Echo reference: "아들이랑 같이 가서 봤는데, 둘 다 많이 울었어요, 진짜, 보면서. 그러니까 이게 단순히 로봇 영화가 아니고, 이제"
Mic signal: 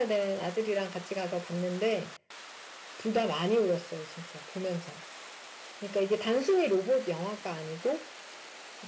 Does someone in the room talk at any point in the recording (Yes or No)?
No